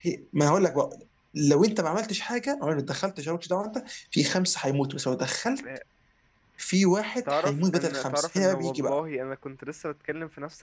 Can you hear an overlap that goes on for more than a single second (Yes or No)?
Yes